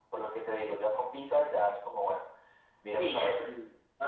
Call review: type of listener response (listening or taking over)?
taking over